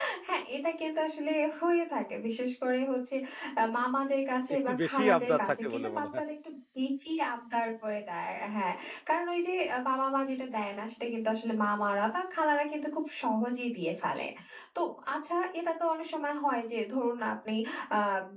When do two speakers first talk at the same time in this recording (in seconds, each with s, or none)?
4.5 s